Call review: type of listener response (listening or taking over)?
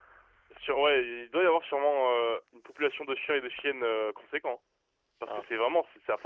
listening